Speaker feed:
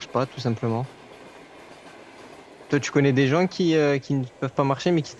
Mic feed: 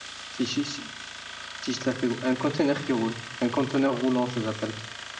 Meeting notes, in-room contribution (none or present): present